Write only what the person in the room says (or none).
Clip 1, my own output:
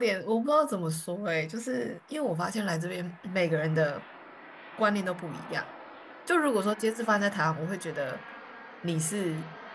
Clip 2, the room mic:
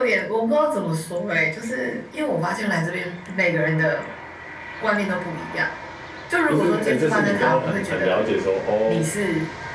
就是呃，就是你都很很了解说，哦